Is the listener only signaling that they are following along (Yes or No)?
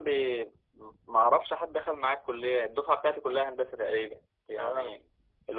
Yes